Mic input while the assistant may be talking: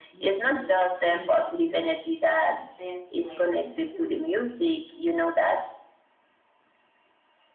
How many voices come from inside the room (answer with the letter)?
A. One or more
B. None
A